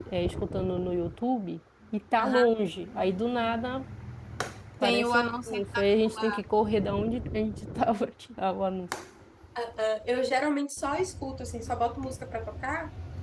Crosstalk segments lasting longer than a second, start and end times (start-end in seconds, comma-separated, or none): 4.8-6.4